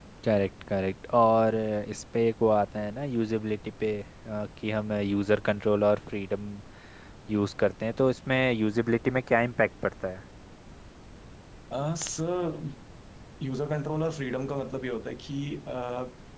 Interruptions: none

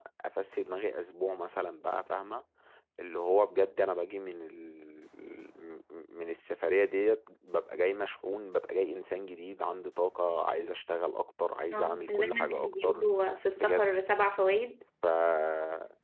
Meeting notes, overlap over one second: present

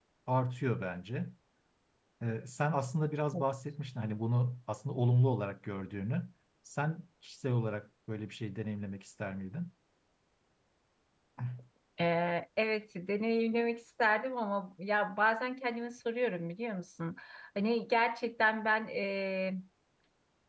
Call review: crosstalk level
none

